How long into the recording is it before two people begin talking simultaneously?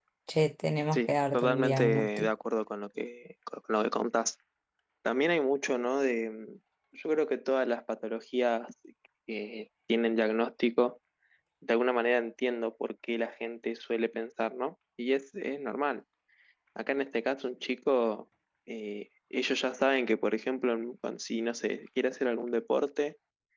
0.9 s

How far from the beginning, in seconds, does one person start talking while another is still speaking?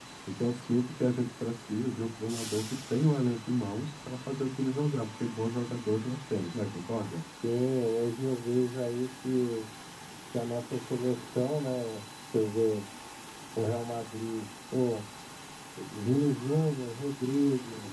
none

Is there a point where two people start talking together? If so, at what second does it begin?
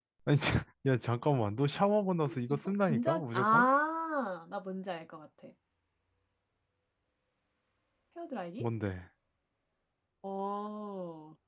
2.3 s

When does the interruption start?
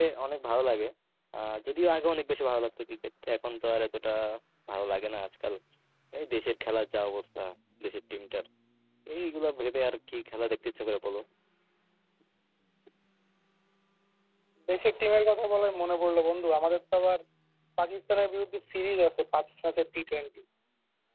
none

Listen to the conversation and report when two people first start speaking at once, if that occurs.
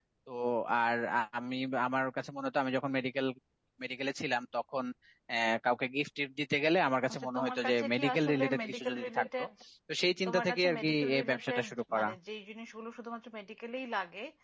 7.1 s

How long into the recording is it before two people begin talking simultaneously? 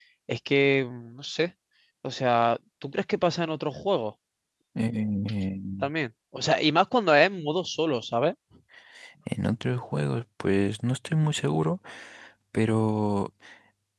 none

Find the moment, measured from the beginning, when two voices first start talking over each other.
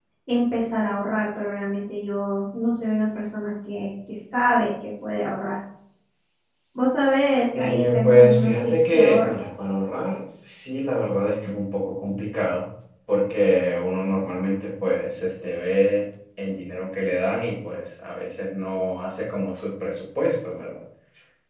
7.6 s

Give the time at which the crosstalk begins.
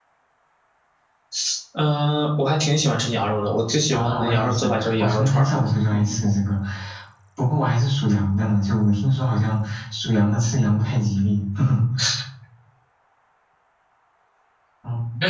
3.9 s

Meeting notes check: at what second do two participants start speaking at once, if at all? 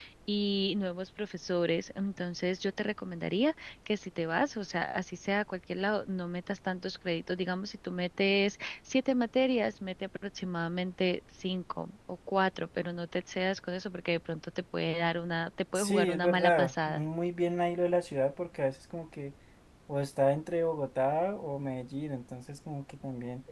15.8 s

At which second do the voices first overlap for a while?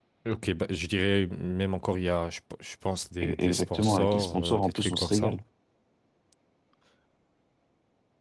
3.2 s

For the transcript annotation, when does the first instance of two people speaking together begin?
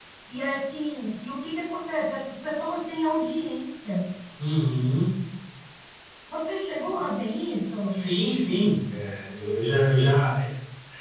none

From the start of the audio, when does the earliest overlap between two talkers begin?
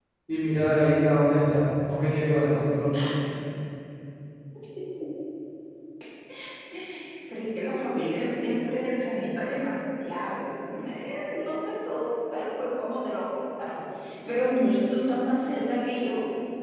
none

